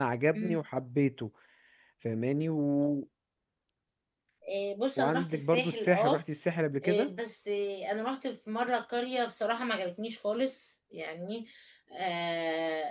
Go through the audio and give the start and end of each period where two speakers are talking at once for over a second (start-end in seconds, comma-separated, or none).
5.0-6.2